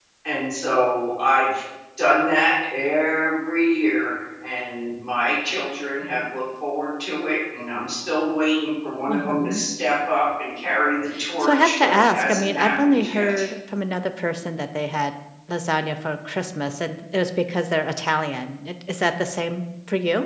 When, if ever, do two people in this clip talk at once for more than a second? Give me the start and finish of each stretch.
11.4-13.3

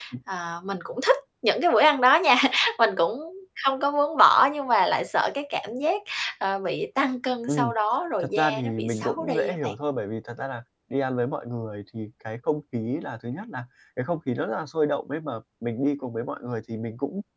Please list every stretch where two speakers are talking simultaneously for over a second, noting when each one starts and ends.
8.2-9.8

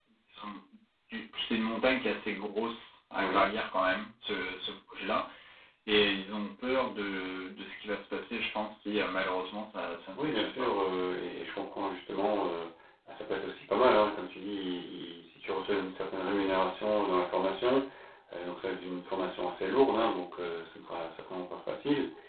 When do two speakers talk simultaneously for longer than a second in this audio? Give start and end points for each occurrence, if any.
none

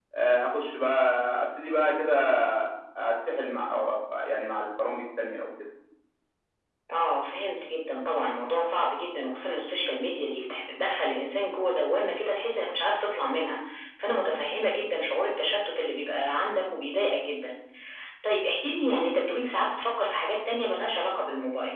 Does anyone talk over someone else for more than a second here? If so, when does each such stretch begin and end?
none

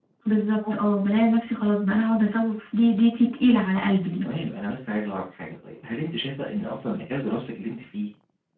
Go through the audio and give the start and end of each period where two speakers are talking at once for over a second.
none

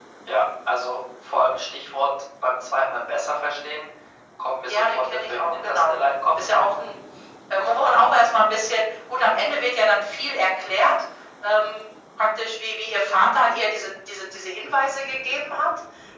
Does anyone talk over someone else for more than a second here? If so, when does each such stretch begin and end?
4.7-5.9

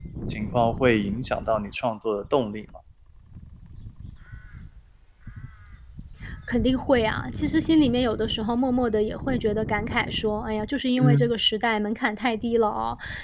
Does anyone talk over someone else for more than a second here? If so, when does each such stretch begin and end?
none

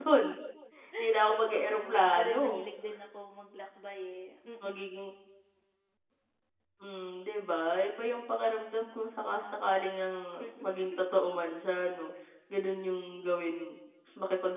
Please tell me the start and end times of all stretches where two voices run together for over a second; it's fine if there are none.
1.3-2.7

